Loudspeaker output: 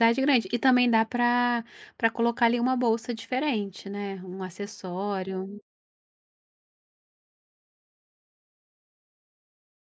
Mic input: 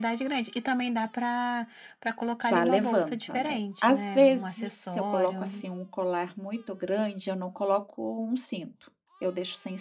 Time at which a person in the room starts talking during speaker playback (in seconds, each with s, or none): 2.4 s